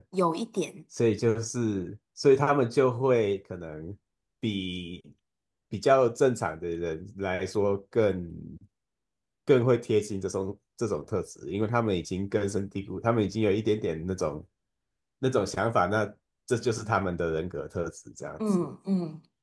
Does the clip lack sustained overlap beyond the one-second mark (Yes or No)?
Yes